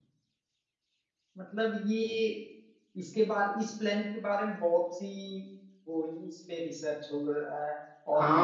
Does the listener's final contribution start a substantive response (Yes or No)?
Yes